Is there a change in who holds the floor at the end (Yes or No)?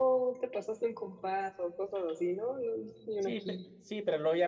Yes